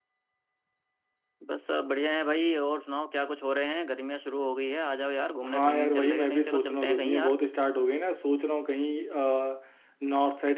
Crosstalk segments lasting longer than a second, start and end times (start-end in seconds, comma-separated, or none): 5.4-7.4